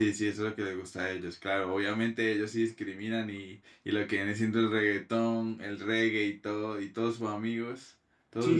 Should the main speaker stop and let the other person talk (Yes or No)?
Yes